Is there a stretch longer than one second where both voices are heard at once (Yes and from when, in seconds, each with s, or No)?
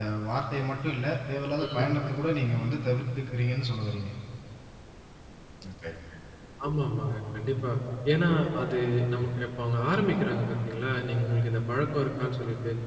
No